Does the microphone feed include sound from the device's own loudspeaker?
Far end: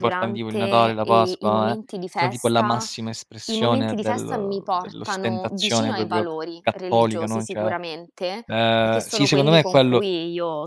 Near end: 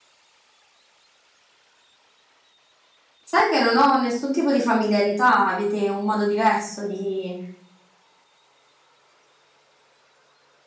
No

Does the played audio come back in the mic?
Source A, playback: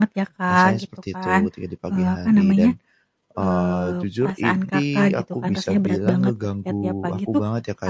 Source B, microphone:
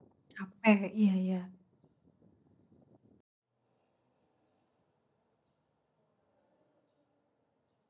No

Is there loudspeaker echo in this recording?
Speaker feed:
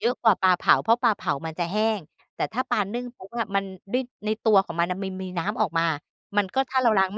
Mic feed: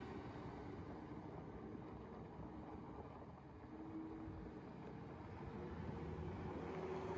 No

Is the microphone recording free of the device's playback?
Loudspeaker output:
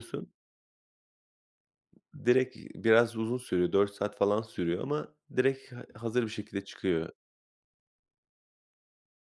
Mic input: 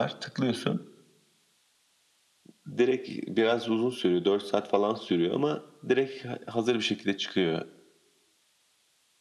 No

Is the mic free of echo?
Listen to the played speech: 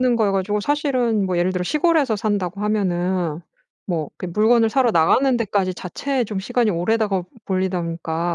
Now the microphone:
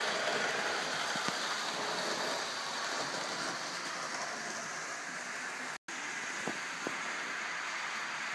Yes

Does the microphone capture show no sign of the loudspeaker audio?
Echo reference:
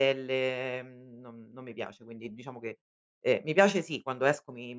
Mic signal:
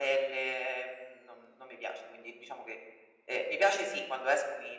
No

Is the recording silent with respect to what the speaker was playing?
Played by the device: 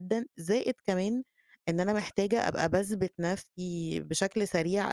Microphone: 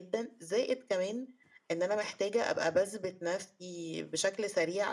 No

